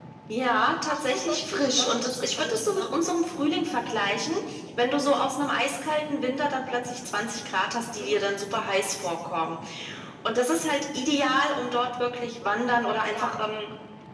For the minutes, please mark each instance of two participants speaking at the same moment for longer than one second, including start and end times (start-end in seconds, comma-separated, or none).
0.9-2.9